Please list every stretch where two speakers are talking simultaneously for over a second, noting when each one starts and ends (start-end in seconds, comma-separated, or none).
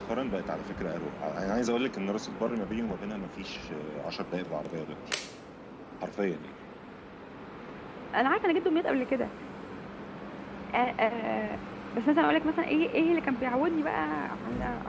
none